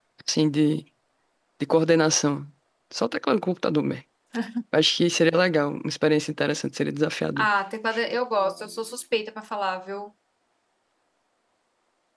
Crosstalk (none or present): none